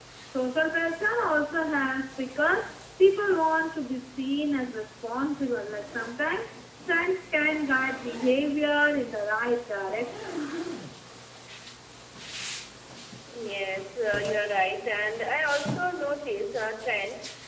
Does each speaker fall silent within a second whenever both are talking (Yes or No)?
Yes